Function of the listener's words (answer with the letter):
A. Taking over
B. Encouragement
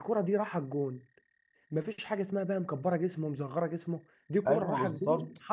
A